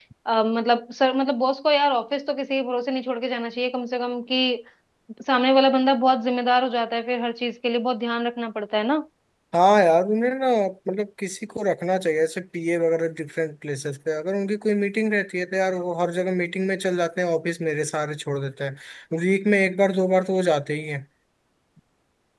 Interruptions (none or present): none